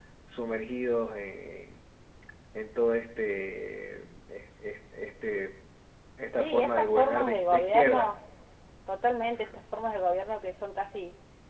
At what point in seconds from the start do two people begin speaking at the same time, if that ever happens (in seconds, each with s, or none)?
6.3 s